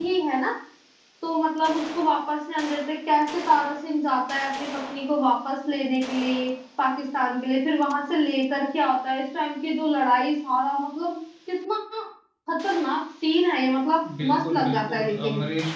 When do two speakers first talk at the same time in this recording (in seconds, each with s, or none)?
14.0 s